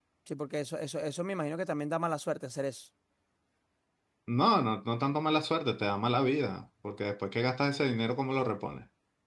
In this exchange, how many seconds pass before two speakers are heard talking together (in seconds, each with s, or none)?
none